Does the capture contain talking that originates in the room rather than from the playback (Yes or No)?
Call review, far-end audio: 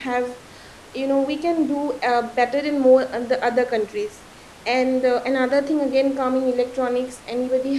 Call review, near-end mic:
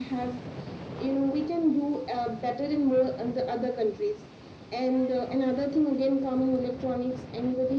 No